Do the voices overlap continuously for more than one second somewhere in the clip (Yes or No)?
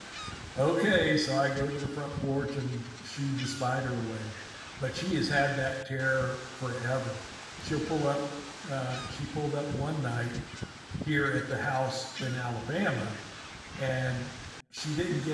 No